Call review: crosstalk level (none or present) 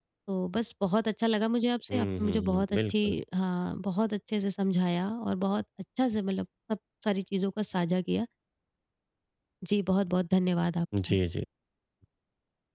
present